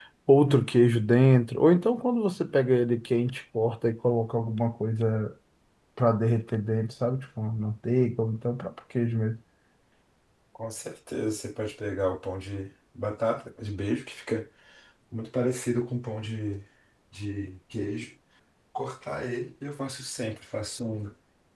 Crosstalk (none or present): none